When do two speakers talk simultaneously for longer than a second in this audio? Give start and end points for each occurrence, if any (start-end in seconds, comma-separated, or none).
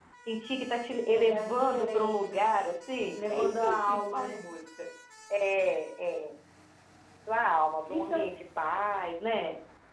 1.1-2.6, 3.1-4.4